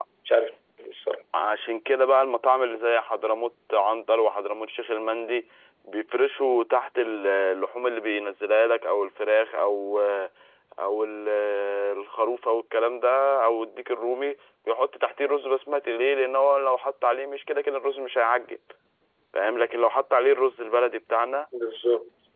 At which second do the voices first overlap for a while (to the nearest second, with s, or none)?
none